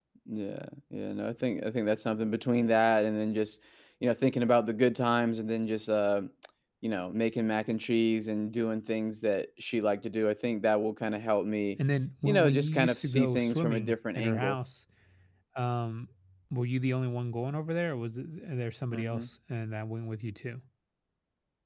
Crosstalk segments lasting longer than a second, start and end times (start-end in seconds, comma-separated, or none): 12.2-14.6